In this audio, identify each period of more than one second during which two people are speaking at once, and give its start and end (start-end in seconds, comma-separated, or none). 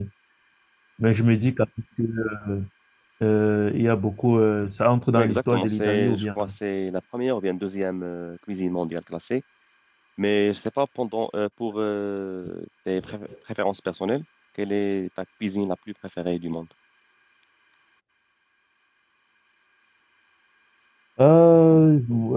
5.1-6.4